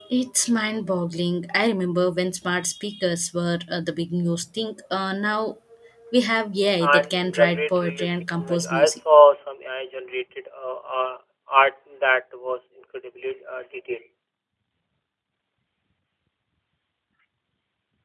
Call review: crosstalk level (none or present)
present